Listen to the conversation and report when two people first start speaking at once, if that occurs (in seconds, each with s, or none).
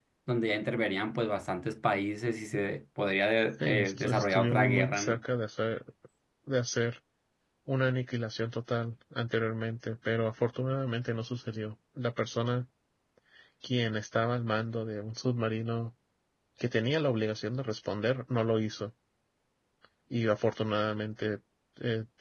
3.5 s